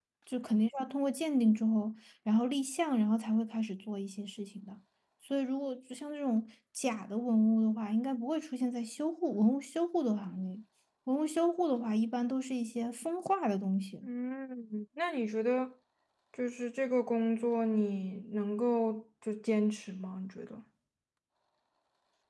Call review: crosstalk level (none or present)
none